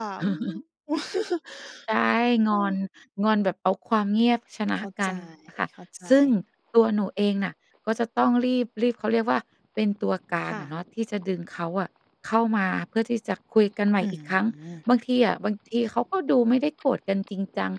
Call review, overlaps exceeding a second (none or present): none